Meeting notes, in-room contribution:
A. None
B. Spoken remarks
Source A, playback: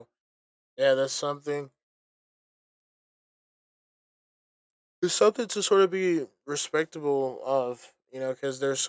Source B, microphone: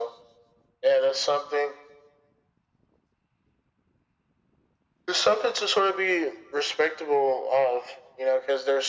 A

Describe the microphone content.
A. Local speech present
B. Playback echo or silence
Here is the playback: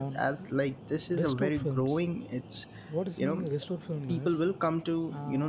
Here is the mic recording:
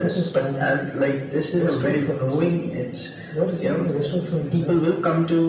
B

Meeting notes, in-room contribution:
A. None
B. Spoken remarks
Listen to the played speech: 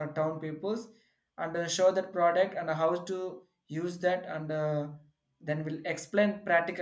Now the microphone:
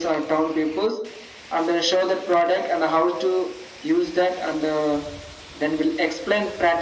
A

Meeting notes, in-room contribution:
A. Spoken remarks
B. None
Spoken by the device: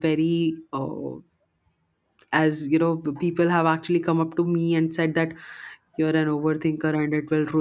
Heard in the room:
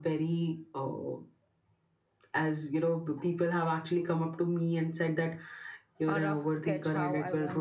A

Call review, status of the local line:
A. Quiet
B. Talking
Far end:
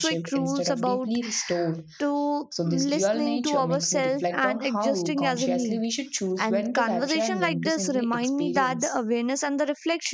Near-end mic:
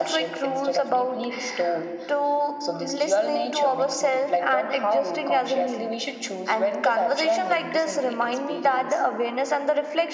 A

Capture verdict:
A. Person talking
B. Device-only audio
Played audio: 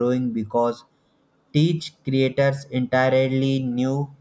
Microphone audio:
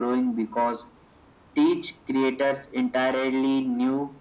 B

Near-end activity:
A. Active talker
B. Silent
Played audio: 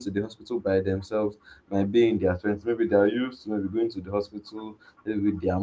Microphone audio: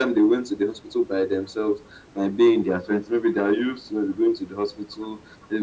B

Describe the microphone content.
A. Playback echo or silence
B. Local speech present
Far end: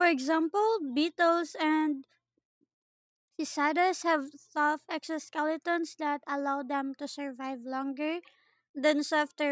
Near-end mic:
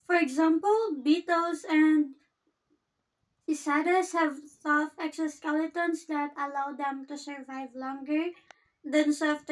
A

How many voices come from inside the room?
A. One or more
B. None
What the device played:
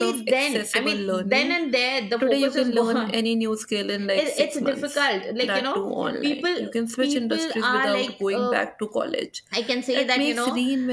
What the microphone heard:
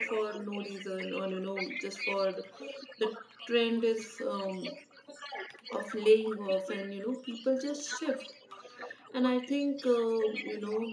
A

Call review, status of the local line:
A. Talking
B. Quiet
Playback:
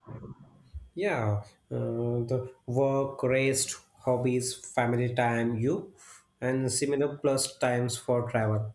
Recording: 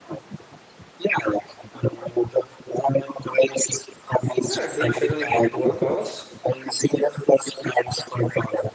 A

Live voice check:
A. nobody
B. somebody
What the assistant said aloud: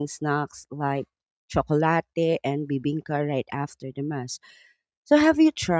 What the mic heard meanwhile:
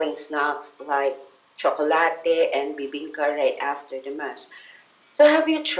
A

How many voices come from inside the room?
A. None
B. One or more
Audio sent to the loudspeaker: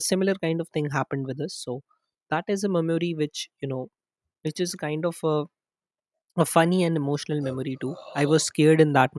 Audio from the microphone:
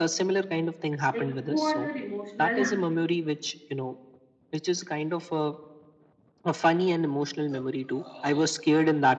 B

